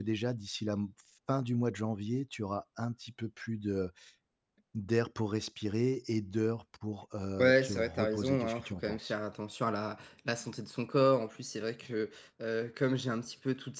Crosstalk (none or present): present